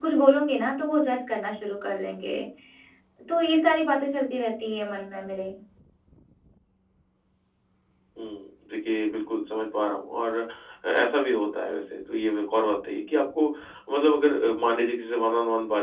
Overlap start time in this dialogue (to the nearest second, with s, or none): none